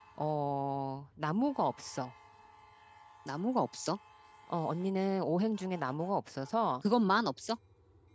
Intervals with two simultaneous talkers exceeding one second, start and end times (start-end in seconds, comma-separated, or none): none